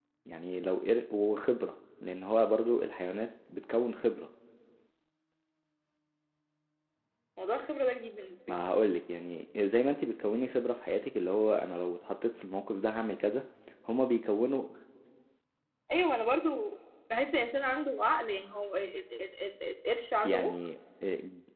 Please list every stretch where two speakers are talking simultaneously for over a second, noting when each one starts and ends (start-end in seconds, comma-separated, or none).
none